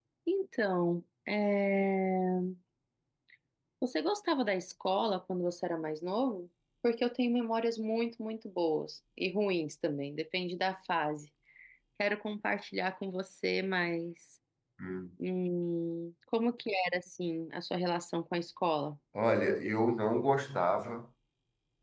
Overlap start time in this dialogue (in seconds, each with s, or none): none